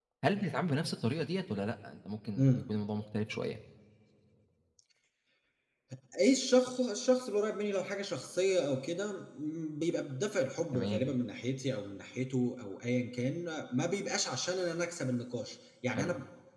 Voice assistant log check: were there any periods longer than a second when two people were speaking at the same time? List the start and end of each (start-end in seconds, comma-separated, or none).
none